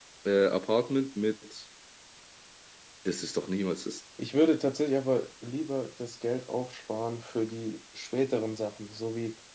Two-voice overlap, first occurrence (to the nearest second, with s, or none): none